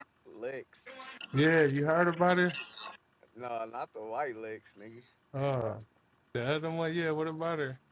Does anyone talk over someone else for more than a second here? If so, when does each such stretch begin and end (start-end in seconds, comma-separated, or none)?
none